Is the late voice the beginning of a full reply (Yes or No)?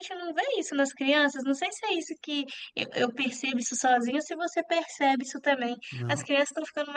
No